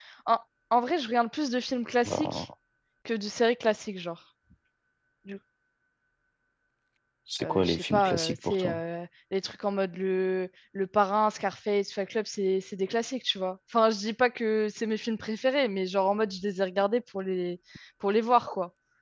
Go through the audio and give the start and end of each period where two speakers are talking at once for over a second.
7.4-8.7

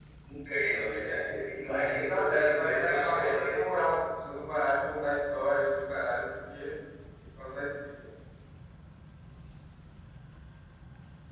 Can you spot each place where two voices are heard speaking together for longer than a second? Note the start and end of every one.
1.9-3.7

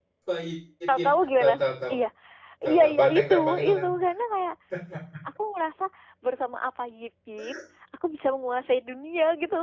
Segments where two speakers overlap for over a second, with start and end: 2.7-3.9

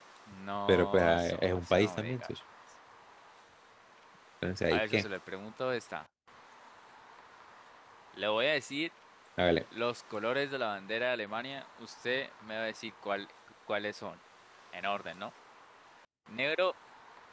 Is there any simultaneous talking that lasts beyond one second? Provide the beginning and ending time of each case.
0.7-2.2

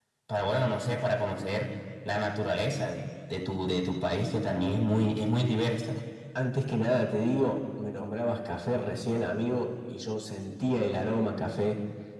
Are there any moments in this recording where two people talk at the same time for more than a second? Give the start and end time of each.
none

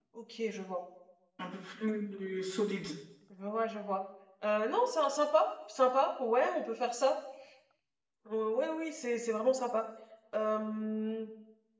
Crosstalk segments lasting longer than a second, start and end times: none

